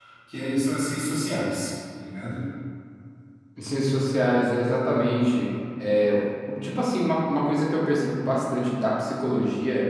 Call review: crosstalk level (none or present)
none